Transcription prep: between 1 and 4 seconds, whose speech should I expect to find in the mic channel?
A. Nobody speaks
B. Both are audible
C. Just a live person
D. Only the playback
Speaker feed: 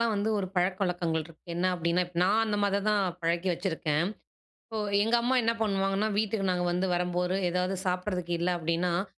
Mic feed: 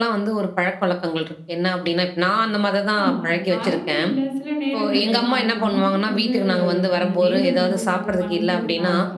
B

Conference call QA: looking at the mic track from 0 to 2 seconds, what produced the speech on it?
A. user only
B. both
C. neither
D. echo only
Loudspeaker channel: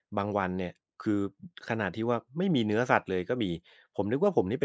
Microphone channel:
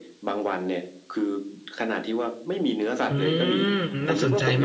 D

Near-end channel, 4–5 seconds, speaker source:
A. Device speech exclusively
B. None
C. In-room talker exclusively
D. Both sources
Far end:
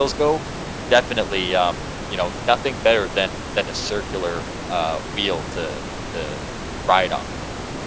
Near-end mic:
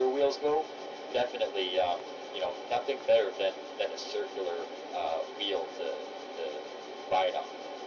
A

